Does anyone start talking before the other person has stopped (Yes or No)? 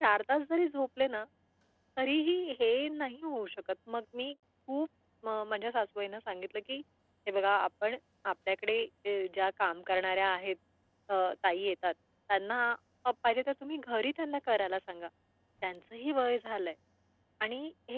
No